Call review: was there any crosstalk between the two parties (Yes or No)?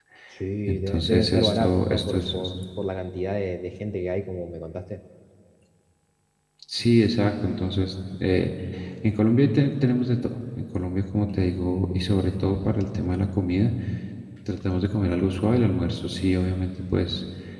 Yes